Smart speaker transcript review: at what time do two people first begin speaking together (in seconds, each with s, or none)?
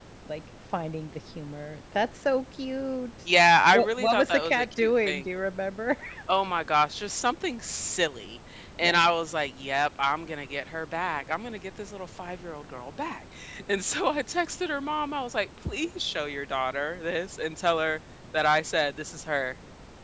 3.7 s